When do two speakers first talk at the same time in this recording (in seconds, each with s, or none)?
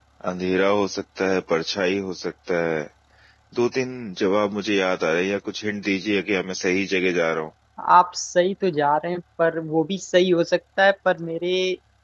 none